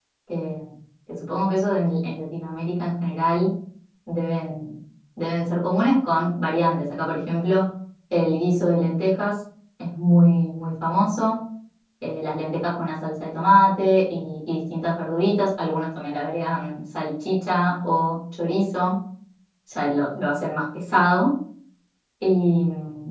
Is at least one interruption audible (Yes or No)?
No